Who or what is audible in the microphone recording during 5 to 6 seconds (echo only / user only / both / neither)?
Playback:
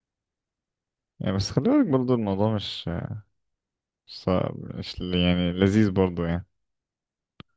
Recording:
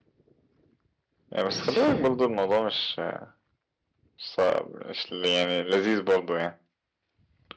echo only